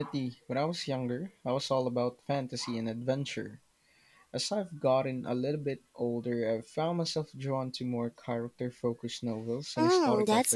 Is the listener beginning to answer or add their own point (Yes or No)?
Yes